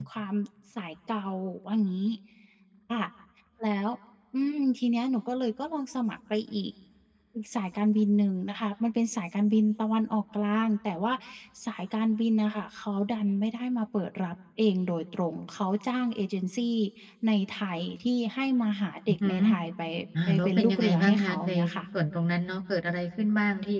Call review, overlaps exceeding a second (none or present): present